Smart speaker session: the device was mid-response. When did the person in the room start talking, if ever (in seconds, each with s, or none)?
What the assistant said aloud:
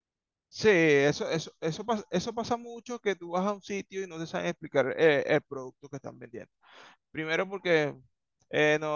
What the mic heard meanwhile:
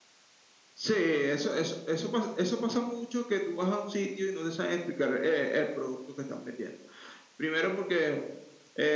none